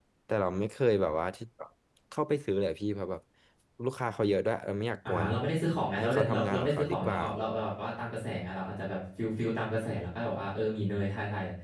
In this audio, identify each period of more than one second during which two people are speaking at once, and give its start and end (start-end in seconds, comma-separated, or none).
6.0-7.2